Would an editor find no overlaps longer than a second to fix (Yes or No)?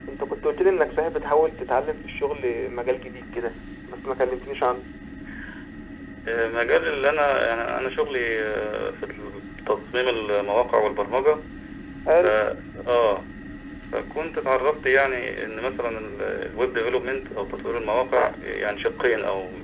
Yes